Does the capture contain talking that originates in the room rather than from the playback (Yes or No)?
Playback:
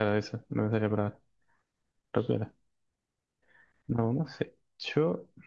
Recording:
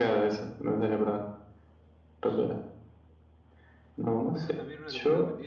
Yes